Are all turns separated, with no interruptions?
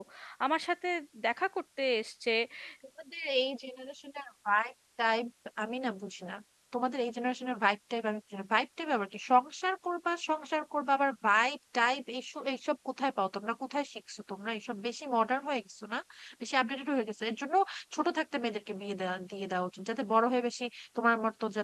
Yes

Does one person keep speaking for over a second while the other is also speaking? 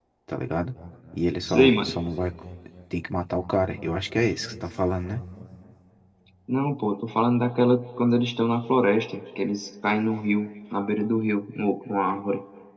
No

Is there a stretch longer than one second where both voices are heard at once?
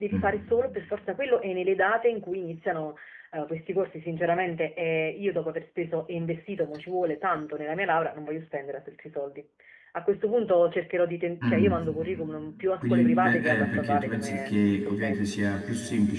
Yes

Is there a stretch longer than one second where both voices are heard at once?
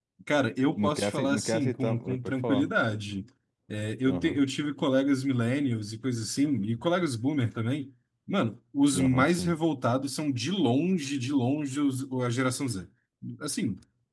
Yes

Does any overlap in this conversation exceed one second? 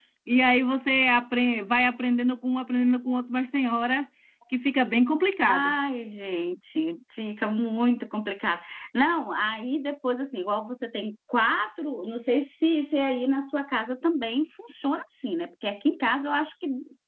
No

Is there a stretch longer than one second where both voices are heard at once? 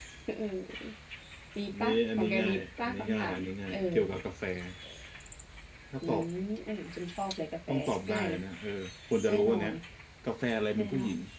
Yes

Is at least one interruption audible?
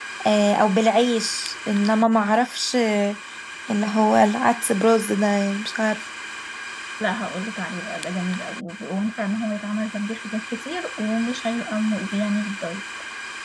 No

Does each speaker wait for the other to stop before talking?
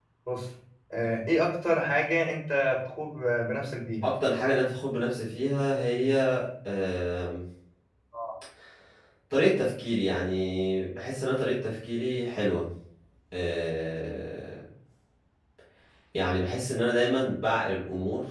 Yes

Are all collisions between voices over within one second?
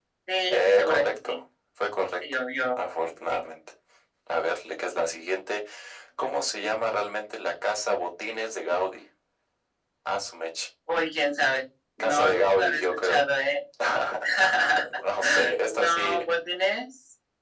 No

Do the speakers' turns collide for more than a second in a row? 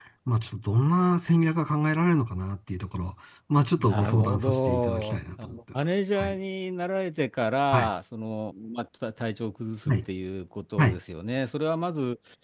Yes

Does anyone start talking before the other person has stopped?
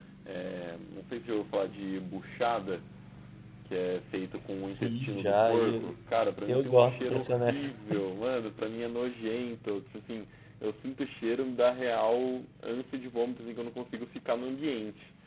Yes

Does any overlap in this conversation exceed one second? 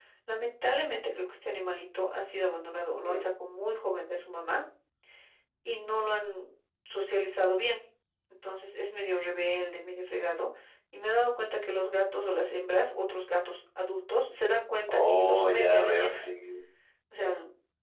Yes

